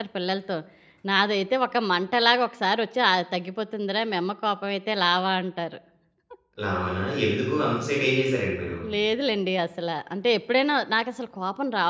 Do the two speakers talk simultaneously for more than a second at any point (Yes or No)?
No